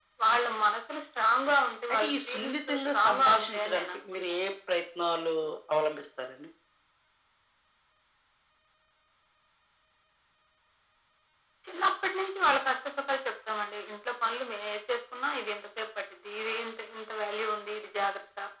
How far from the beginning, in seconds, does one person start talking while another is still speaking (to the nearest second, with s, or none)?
2 s